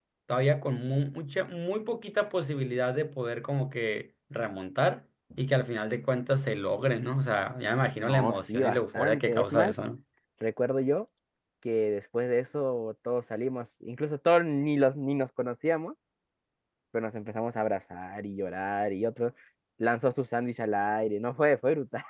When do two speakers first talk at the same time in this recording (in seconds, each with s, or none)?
8.0 s